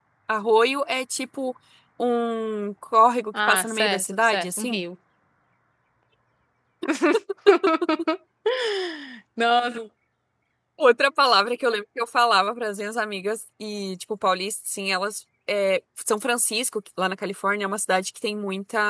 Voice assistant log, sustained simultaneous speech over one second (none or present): present